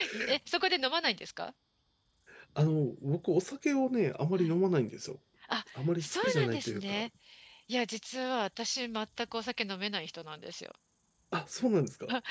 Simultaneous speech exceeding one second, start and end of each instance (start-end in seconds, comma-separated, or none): 5.8-7.1